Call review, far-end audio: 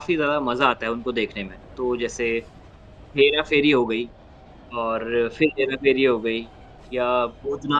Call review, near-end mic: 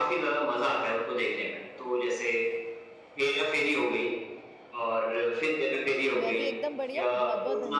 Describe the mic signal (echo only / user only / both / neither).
both